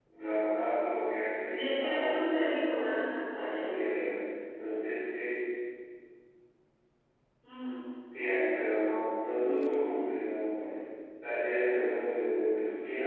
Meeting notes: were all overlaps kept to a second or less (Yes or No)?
No